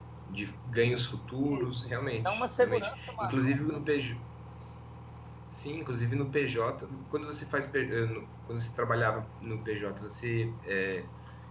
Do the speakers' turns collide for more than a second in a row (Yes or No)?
Yes